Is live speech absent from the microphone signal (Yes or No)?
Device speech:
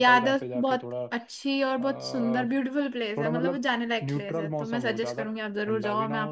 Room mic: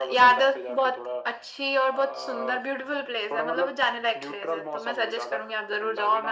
Yes